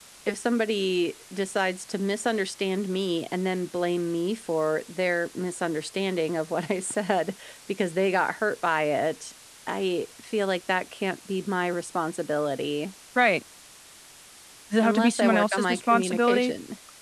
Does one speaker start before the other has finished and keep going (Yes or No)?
Yes